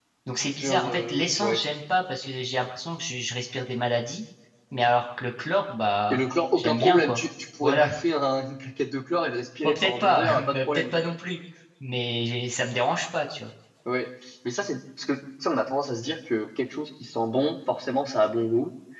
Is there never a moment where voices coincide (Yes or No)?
No